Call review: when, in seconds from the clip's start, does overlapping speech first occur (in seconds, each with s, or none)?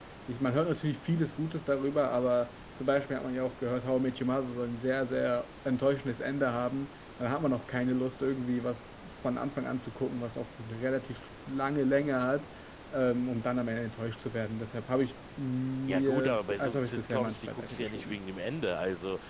15.9 s